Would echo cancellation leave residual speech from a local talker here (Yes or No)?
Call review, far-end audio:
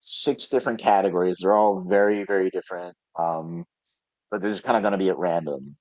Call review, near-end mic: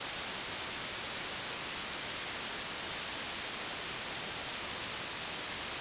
No